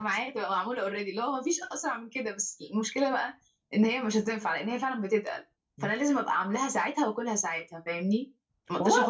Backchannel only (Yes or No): Yes